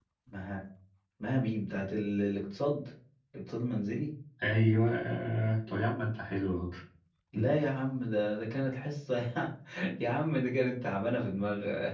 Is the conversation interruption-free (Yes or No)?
Yes